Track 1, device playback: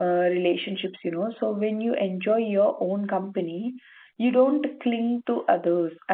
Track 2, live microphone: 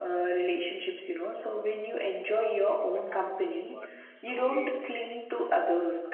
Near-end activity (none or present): present